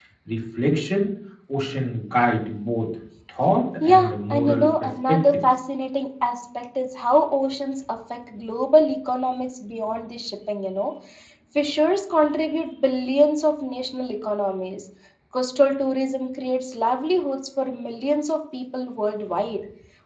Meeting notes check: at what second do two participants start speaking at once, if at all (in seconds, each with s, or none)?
3.8 s